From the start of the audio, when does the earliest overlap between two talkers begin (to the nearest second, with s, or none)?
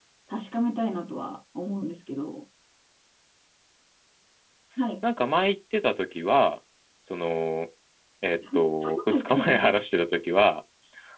9 s